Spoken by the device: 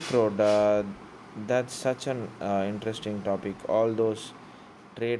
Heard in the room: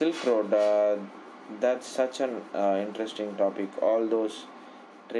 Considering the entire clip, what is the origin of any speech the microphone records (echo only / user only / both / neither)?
echo only